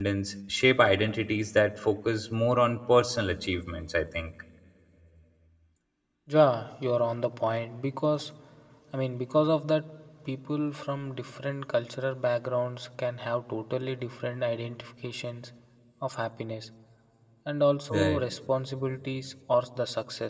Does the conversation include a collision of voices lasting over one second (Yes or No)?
No